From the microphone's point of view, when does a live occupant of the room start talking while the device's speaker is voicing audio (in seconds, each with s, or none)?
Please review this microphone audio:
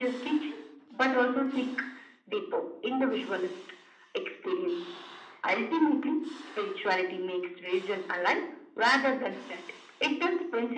none